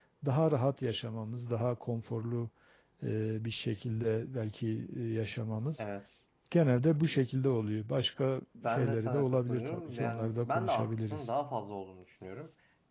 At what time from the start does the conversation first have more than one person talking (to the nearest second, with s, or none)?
9 s